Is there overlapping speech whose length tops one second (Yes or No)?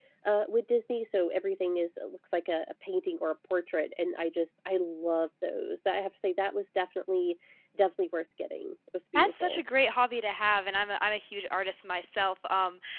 No